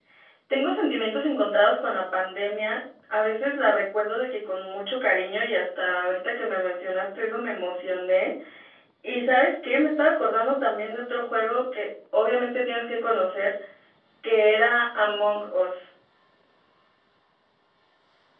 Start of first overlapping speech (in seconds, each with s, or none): none